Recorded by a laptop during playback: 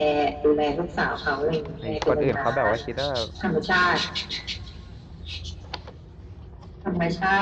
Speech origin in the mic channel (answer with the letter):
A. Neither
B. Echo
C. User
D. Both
D